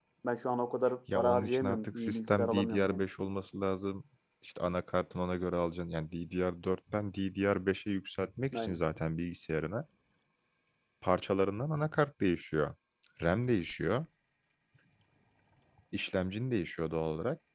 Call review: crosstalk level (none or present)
present